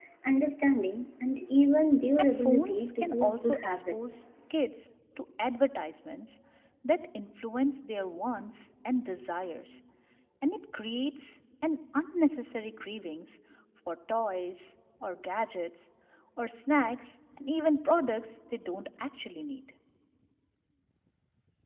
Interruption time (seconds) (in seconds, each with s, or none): 2.2 s